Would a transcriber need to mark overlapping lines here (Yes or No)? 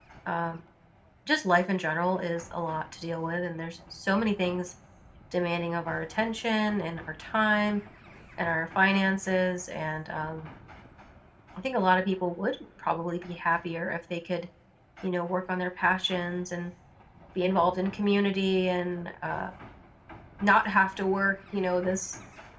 No